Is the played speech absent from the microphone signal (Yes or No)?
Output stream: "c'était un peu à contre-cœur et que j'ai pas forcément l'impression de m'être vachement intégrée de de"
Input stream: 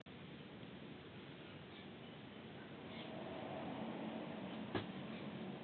Yes